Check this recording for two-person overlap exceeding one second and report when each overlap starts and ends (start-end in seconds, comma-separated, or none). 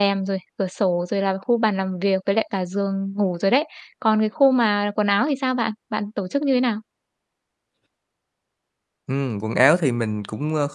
none